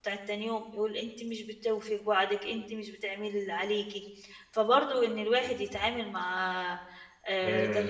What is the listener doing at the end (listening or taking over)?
listening